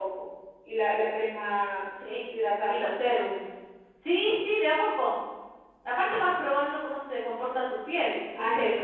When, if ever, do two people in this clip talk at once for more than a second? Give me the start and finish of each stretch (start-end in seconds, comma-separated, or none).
none